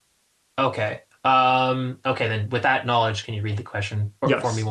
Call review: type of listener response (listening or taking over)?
taking over